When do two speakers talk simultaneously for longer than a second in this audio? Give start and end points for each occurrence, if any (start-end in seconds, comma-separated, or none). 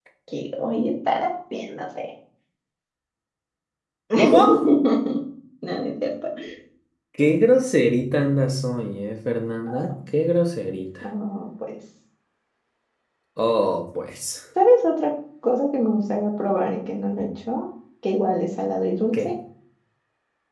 none